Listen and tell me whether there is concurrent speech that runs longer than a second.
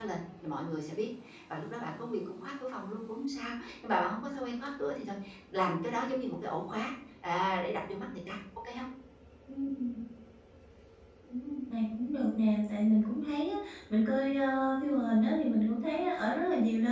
No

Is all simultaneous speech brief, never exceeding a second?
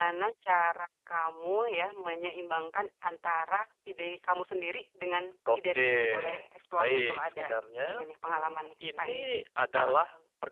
No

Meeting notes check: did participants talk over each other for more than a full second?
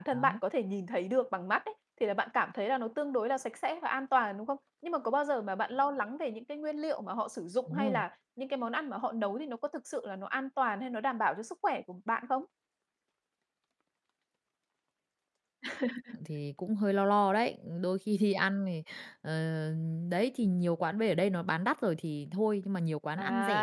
No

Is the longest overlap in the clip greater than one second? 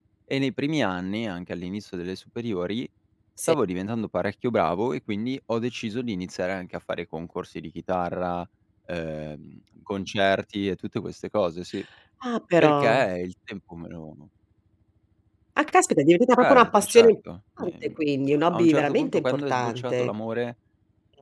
Yes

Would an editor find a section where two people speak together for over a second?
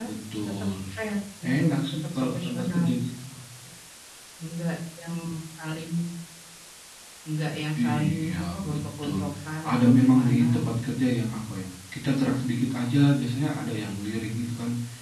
Yes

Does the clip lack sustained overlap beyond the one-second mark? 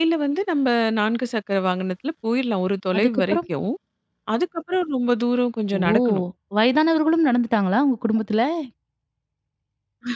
Yes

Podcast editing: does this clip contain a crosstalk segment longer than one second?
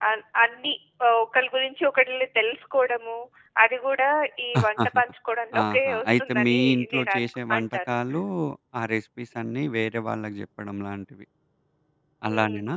Yes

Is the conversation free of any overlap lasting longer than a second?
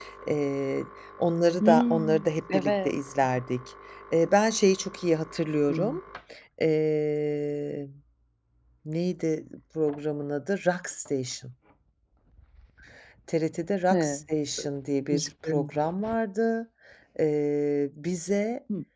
No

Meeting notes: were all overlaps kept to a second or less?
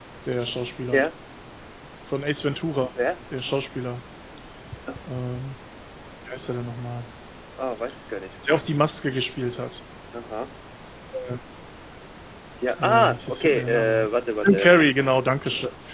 No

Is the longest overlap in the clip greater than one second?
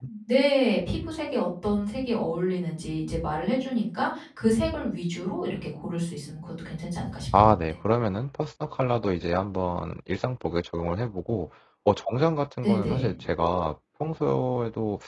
No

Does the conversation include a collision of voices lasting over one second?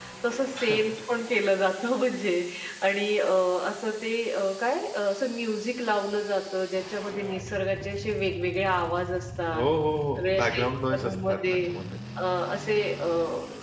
Yes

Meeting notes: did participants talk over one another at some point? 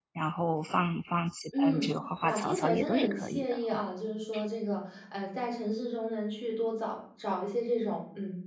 Yes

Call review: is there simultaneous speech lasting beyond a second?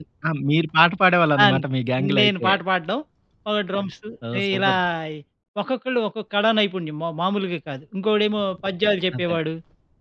No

